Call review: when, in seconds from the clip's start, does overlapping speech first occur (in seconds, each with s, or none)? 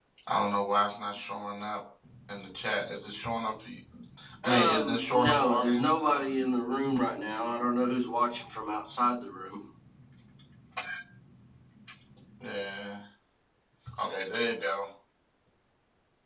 4.4 s